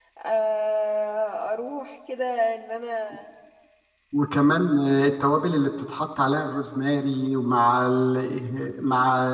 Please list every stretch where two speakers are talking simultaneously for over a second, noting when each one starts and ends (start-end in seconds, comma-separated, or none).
none